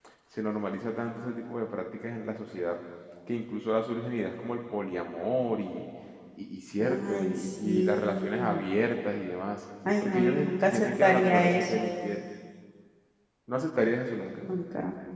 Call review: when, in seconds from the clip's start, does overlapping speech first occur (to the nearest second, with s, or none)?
7 s